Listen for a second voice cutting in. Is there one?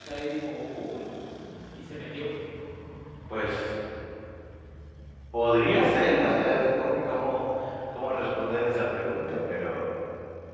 No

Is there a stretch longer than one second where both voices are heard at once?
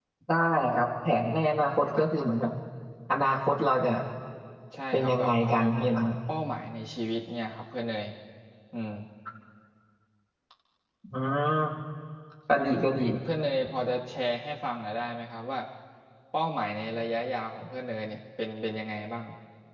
Yes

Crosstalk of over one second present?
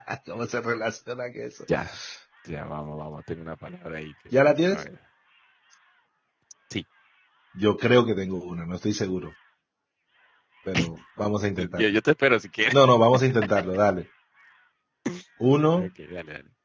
No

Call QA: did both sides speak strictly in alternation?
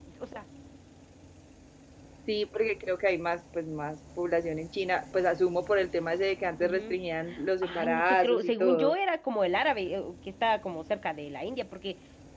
No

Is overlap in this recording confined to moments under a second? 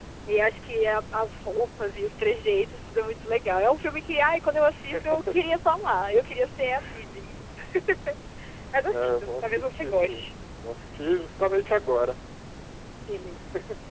No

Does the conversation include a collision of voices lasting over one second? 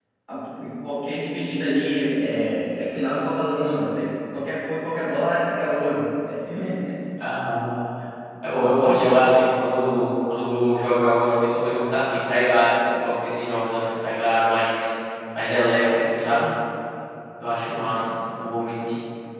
No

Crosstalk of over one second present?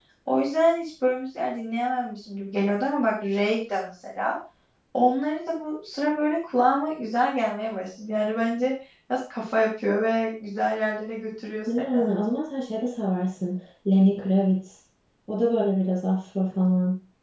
No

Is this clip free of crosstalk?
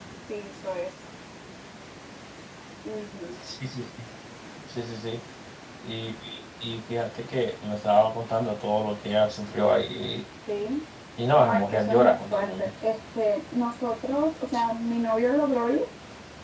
No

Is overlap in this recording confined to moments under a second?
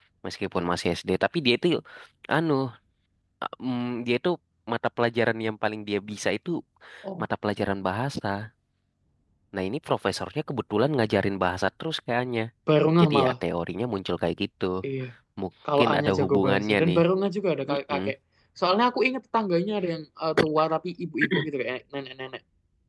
No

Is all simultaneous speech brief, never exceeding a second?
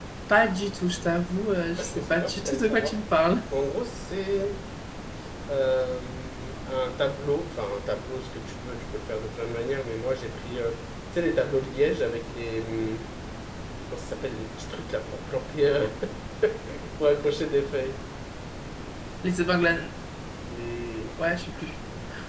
No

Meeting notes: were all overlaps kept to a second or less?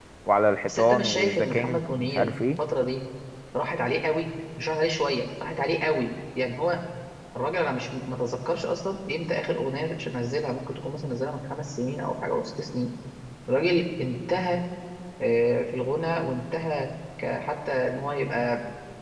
No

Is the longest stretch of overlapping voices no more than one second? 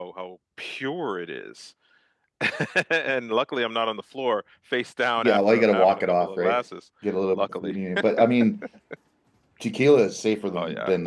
No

